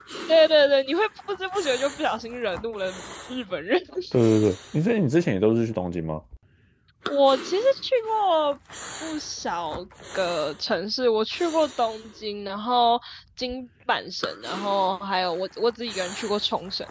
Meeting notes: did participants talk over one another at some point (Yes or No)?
No